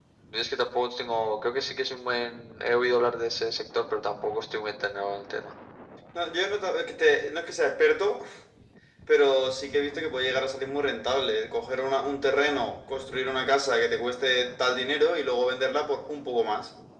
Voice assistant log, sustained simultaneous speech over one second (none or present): none